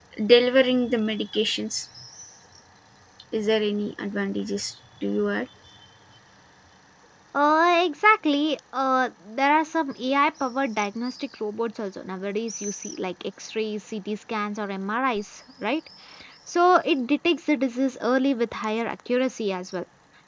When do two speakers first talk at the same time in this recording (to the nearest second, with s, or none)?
none